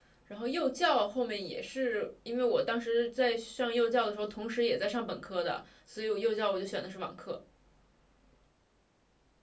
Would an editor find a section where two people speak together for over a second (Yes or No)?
No